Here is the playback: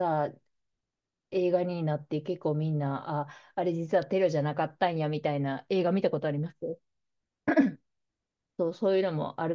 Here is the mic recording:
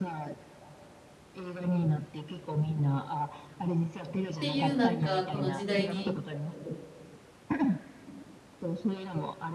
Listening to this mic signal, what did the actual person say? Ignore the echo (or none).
っていう、なんか、この時代に